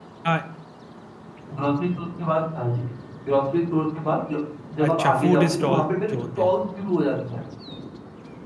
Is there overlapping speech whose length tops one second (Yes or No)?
Yes